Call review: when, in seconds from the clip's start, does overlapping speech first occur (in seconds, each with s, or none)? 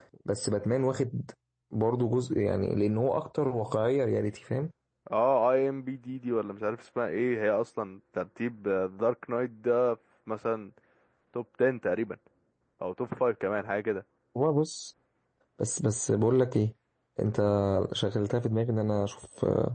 none